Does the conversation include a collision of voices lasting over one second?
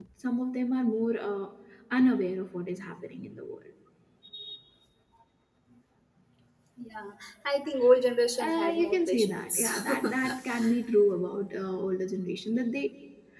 Yes, from 8.4 s

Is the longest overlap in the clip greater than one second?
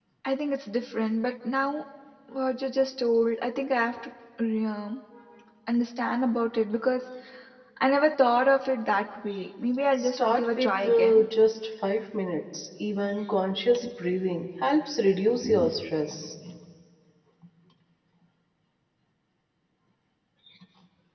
Yes, from 10.0 s

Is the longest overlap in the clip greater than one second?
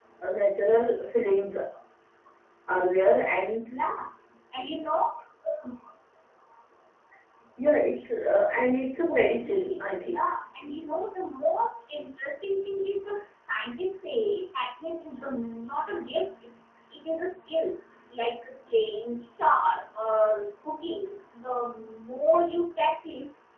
Yes, from 9.0 s

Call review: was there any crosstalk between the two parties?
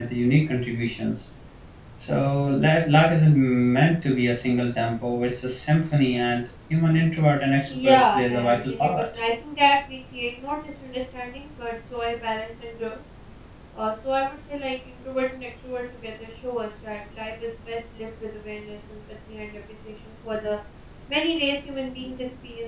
Yes, from 7.7 s

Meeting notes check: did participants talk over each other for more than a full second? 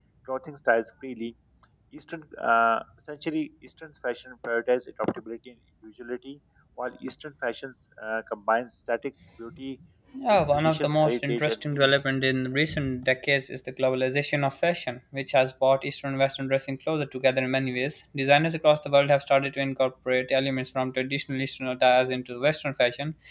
Yes, from 10.5 s

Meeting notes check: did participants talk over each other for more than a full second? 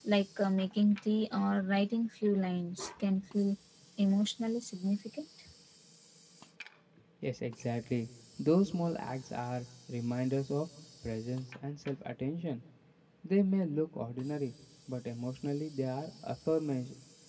No

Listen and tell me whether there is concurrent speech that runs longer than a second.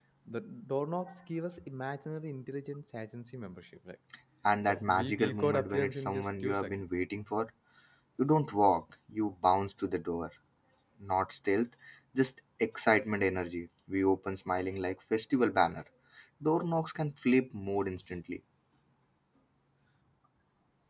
Yes, from 4.6 s

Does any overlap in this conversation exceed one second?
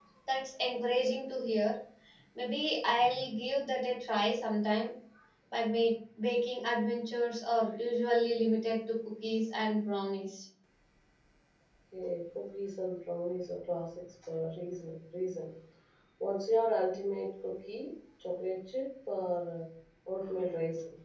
No

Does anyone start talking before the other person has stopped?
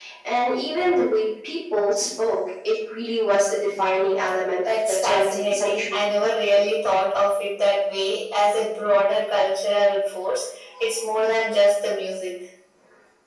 Yes, from 4.6 s

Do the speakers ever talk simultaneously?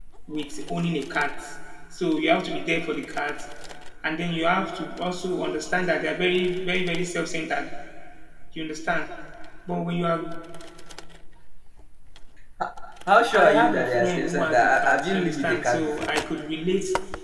Yes, from 13.3 s

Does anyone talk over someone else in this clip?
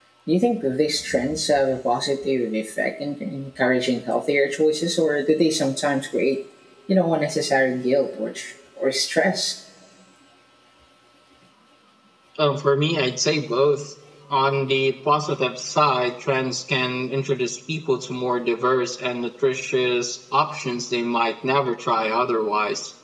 No

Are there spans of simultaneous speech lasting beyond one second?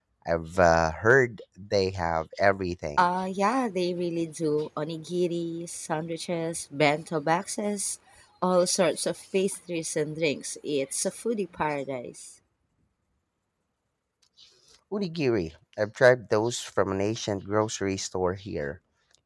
No

